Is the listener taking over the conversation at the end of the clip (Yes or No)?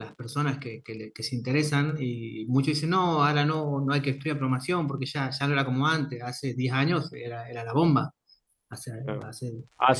Yes